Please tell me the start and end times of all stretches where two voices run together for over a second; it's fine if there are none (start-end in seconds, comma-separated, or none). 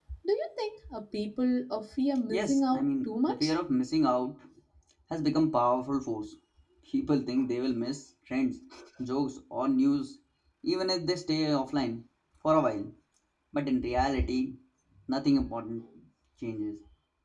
2.3-3.5